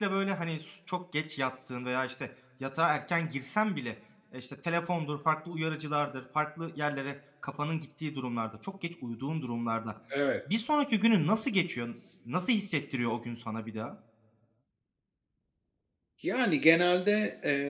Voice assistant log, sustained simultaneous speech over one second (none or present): none